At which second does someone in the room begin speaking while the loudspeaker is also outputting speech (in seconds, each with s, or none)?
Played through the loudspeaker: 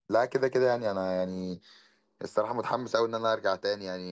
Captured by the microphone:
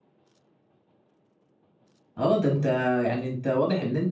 2.1 s